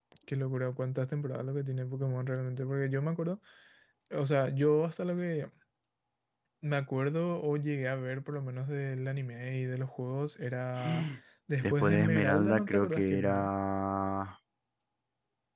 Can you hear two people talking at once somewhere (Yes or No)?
Yes